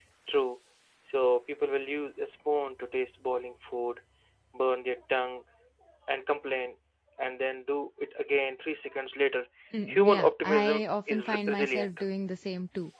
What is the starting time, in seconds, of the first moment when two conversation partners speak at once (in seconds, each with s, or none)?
9.7 s